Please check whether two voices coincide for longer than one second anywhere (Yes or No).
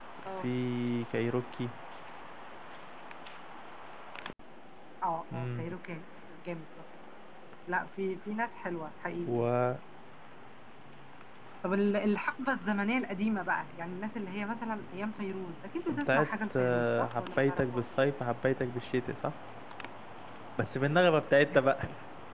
Yes